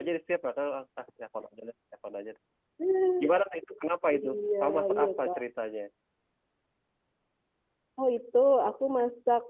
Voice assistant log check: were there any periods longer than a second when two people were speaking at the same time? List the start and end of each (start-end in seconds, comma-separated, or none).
4.2-5.4